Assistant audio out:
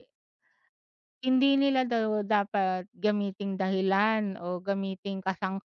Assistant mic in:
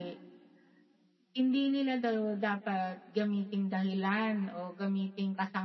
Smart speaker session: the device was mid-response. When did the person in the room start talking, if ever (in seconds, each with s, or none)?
none